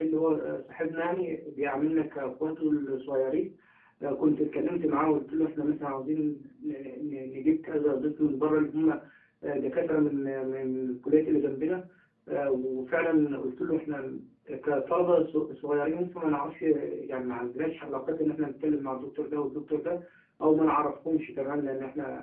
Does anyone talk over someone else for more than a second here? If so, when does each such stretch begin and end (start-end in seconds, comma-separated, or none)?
none